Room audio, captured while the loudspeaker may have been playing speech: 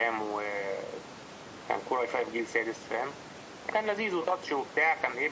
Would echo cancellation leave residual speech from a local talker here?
No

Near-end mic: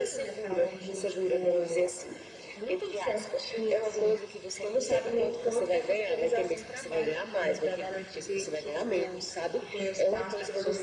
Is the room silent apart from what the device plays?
Yes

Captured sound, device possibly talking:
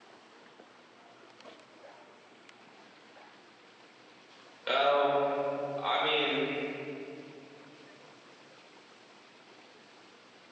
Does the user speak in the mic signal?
Yes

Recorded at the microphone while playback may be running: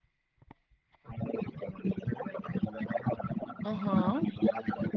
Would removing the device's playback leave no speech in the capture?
No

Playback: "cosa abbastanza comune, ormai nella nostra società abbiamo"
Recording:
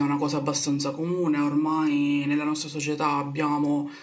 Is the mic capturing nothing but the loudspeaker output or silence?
Yes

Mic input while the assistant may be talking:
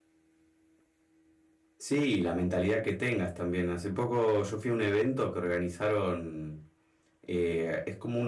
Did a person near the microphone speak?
Yes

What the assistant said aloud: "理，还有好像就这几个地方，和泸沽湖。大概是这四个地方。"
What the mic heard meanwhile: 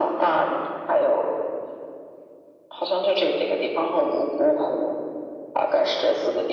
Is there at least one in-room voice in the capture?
No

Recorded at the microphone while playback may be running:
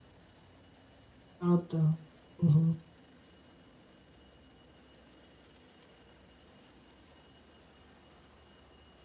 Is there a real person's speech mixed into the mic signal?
Yes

